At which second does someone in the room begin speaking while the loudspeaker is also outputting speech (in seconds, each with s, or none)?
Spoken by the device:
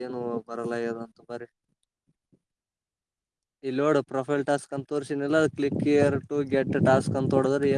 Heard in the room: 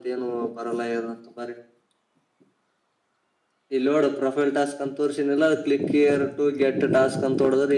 none